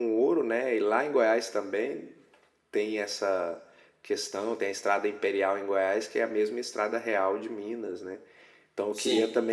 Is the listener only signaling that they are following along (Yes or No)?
Yes